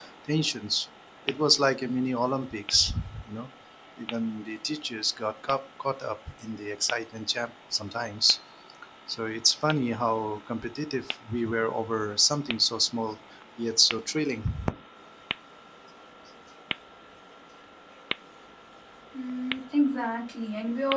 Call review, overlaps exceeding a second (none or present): none